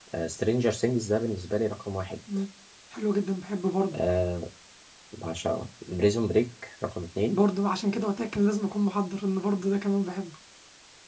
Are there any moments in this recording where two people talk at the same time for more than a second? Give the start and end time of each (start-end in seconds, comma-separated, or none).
none